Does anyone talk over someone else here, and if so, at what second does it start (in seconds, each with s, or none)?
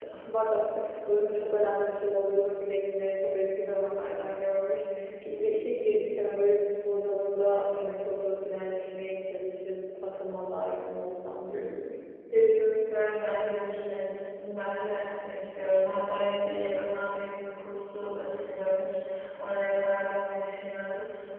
none